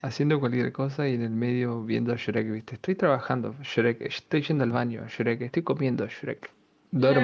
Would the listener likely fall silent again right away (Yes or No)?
No